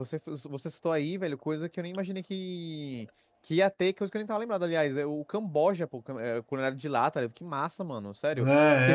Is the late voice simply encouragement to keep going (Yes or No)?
No